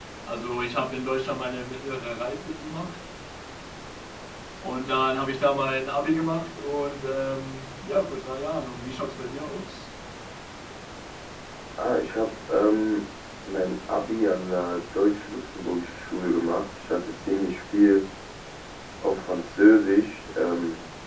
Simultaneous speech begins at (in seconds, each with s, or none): none